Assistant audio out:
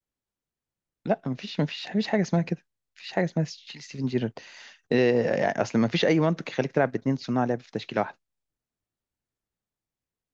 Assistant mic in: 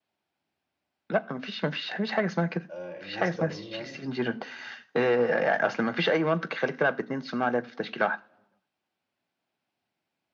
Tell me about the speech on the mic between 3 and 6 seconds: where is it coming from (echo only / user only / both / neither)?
both